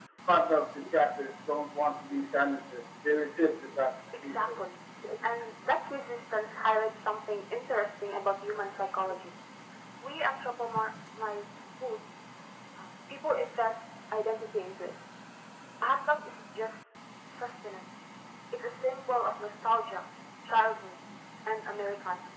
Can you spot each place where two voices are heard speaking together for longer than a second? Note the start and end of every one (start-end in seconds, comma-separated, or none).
none